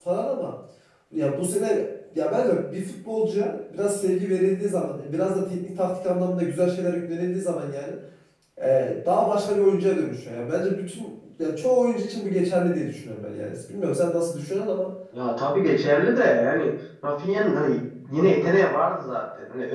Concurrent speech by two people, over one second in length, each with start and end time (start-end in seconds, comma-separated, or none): none